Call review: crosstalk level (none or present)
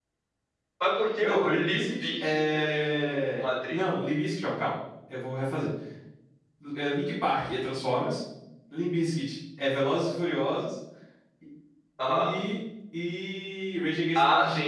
present